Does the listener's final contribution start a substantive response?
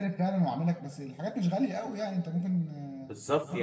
Yes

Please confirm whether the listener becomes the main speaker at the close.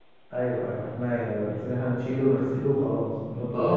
Yes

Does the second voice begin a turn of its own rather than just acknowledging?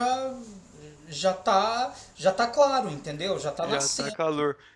Yes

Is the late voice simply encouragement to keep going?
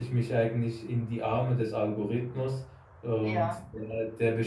Yes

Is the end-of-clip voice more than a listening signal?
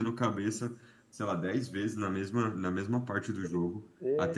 No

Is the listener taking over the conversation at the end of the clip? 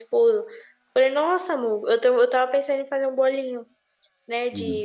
No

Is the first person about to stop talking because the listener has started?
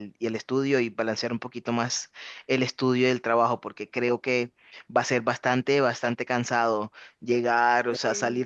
No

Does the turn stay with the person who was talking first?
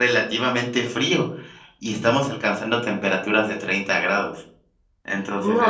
No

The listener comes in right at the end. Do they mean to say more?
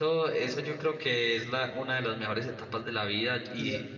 No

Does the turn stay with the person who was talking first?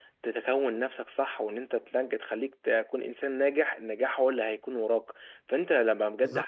Yes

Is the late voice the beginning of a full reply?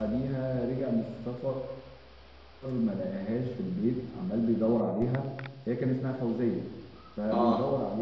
No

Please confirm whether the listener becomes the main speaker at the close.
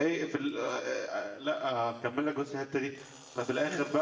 No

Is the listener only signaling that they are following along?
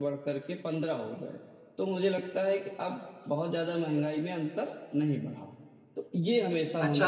No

